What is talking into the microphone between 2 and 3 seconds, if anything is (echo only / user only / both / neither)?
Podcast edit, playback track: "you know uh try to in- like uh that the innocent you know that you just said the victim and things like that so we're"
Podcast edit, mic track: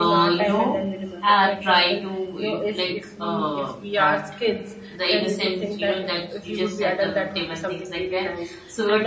both